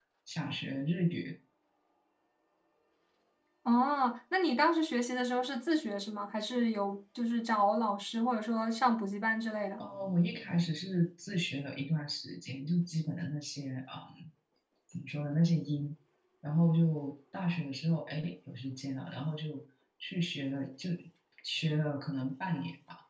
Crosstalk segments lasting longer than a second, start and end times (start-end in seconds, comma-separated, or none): none